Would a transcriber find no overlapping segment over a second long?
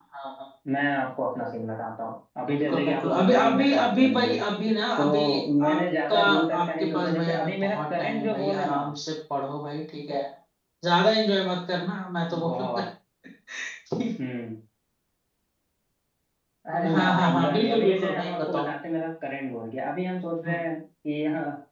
No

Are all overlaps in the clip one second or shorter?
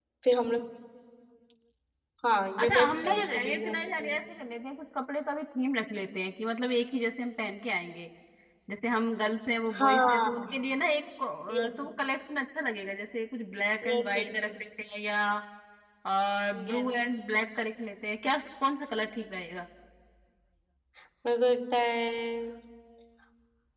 No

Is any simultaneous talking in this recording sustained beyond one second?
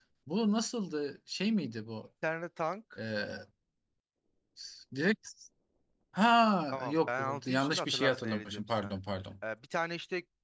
Yes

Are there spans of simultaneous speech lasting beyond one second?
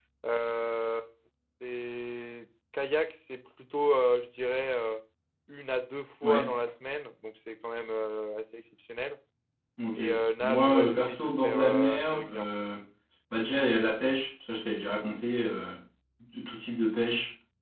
Yes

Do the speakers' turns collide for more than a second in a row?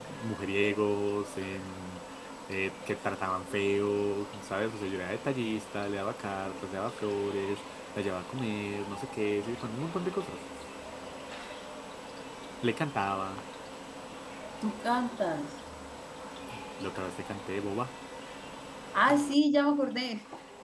No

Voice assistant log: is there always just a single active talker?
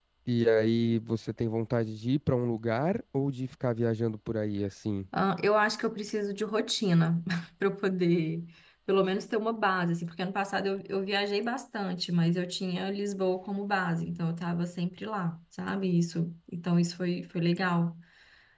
Yes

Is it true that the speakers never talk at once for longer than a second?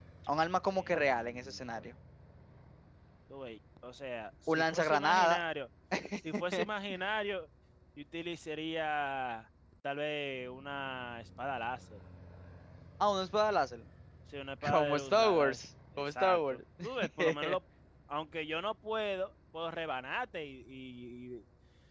No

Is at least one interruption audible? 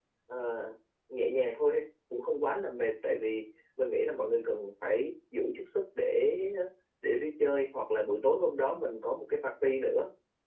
No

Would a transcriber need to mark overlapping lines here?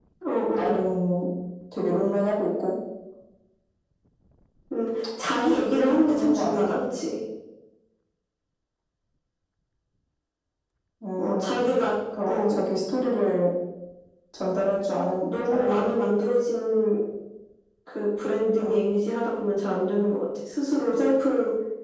Yes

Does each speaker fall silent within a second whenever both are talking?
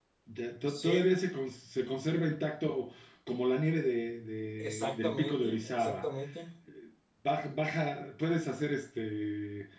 No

